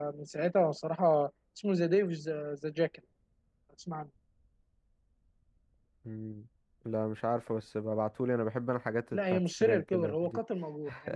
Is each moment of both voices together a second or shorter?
No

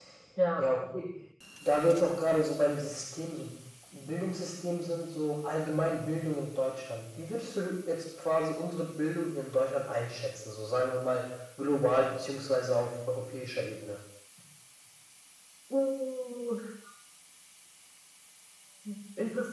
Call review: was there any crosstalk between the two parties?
No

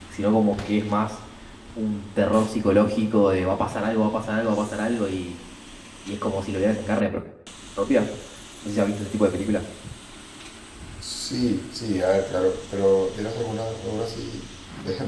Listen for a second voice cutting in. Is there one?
No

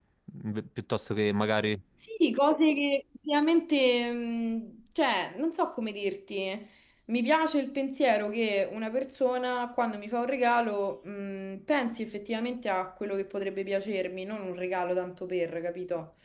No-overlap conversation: Yes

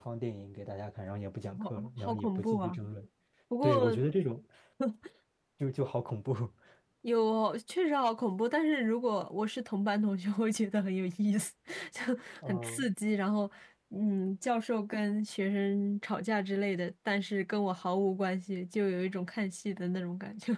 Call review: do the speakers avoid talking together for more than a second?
No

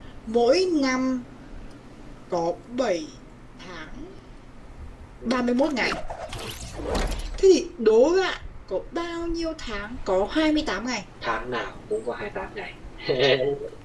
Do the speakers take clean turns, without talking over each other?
Yes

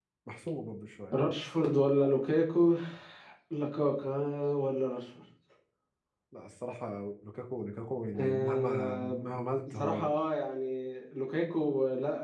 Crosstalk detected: Yes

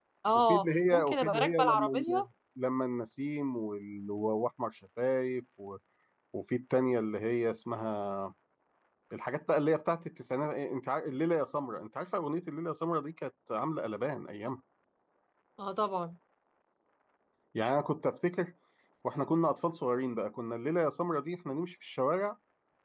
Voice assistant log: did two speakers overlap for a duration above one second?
Yes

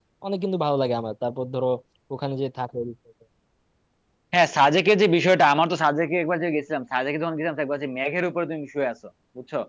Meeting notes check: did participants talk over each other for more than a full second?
No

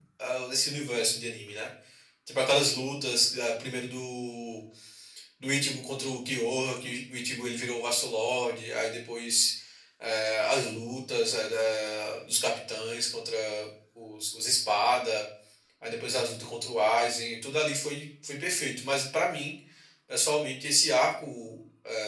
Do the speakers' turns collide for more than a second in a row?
No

